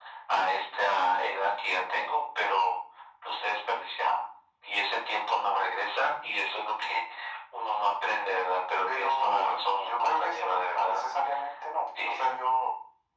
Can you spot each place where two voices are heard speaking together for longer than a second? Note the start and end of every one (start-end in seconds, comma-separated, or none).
9.8-11.0